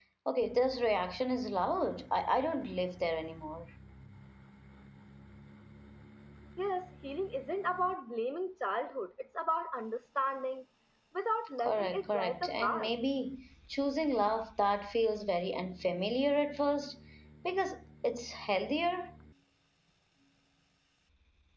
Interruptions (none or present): present